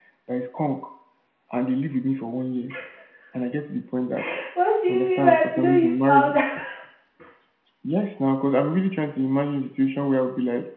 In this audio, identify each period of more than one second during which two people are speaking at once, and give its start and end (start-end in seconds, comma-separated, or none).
4.9-6.3